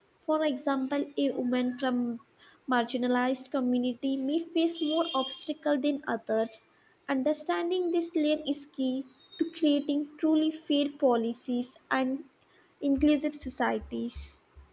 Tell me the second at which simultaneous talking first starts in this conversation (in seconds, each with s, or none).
none